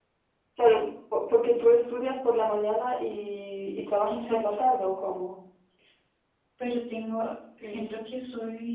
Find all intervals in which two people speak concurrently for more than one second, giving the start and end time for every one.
none

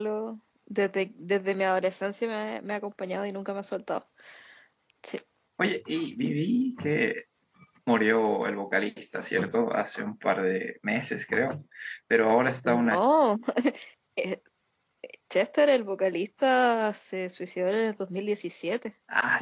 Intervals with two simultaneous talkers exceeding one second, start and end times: none

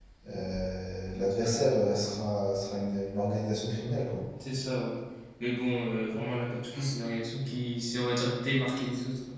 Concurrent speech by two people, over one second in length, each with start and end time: none

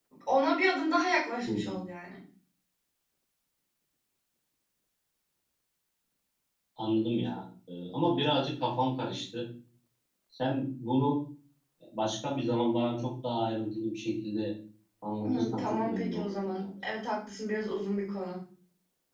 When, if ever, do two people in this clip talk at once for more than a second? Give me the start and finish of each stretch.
15.2-16.7

